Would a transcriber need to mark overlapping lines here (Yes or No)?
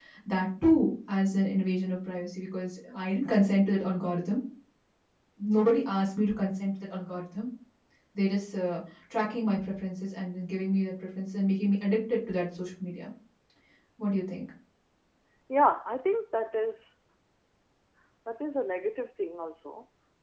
No